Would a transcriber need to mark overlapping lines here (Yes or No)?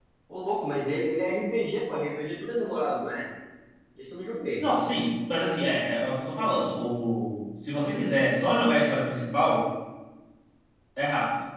No